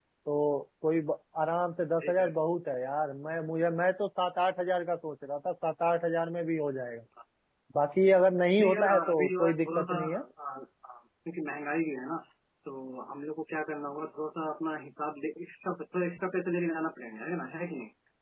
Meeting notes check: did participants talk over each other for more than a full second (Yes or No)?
Yes